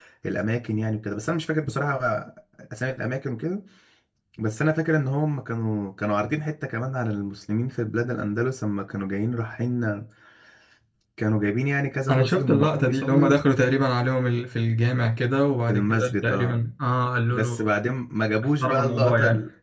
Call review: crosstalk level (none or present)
present